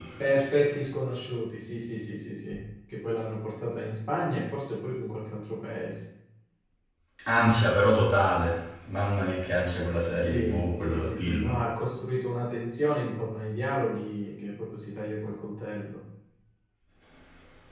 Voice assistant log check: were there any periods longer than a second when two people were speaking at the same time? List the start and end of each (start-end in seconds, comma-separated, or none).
10.1-11.7